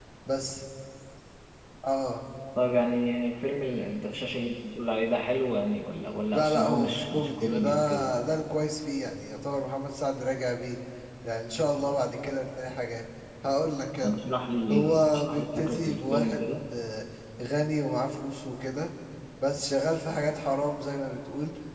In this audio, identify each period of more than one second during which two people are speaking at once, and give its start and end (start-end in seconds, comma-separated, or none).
6.3-8.1, 14.7-16.5